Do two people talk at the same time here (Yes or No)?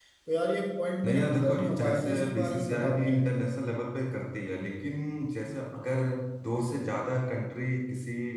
Yes